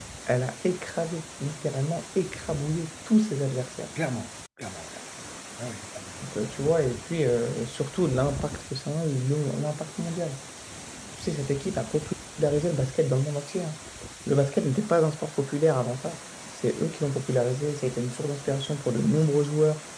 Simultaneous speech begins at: none

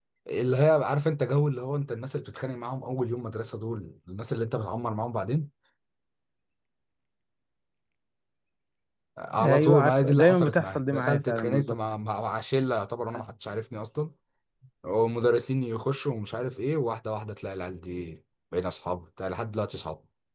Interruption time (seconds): 9 s

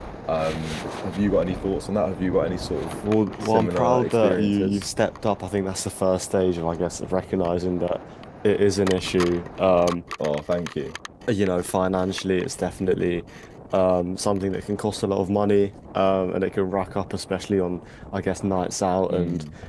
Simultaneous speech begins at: 3 s

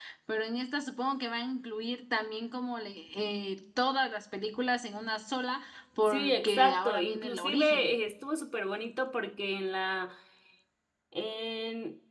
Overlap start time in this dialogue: 6 s

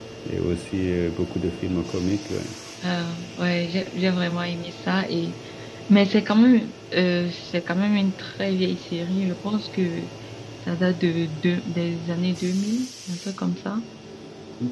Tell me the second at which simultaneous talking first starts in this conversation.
none

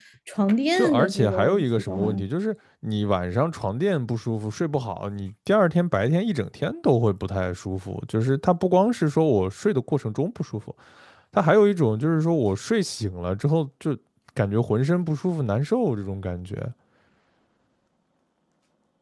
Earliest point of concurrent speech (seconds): 1 s

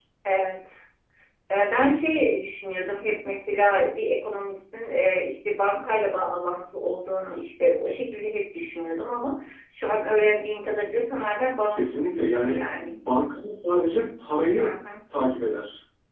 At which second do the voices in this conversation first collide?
12 s

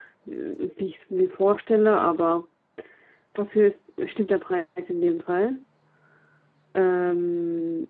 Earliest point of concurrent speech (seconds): none

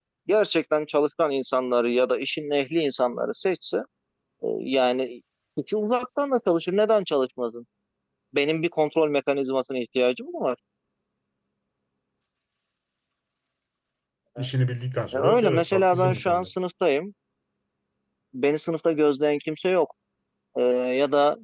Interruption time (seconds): 15 s

